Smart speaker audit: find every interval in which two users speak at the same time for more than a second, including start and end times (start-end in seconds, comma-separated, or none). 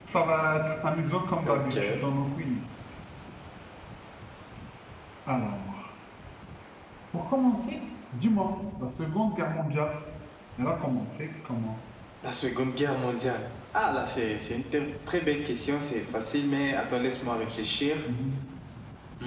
none